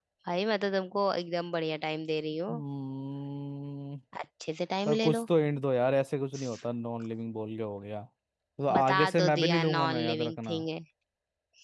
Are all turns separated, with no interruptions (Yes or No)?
No